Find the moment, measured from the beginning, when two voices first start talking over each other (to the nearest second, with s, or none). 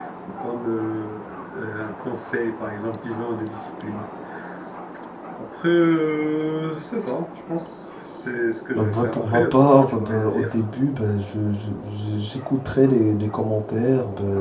9 s